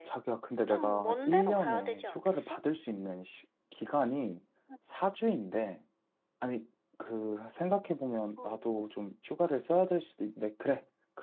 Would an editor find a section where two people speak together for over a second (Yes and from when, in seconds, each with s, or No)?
Yes, from 0.7 s